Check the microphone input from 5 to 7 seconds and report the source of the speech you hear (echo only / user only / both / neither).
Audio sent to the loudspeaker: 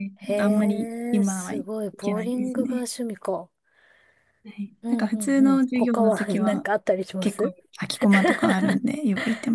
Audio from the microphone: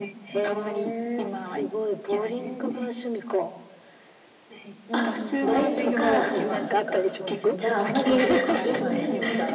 both